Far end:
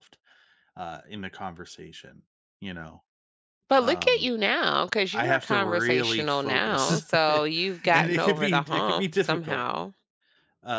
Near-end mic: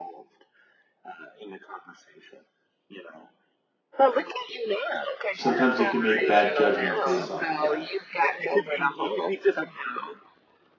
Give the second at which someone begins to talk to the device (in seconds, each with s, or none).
5.4 s